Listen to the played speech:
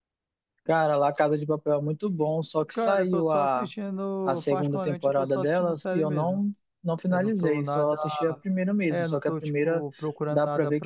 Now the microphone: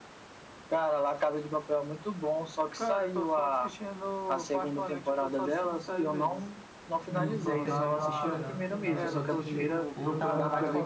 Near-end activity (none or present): present